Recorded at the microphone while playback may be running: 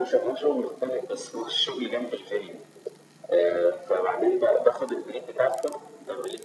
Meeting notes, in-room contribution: none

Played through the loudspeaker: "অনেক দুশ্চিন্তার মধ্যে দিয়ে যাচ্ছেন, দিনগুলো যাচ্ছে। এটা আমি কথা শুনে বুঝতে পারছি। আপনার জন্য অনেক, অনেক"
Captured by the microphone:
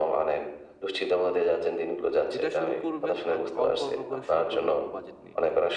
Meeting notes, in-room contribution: present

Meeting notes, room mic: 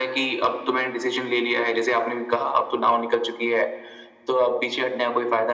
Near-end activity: none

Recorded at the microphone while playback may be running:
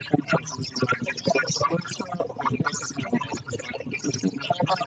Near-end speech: none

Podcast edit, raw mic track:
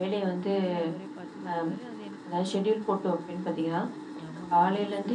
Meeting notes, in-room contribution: present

